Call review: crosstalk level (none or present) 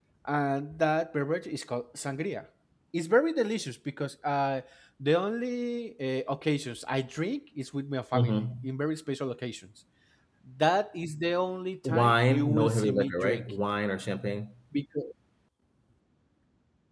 present